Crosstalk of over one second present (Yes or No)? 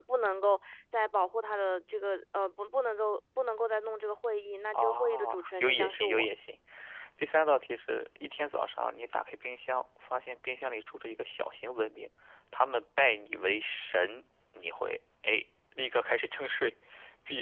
Yes